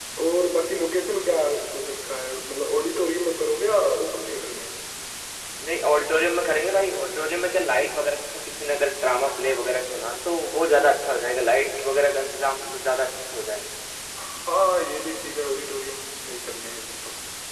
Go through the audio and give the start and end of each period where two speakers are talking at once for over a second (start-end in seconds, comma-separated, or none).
none